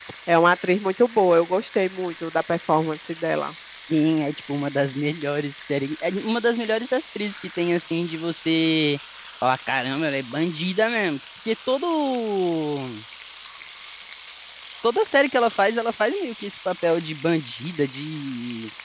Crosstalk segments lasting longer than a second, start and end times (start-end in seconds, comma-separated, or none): none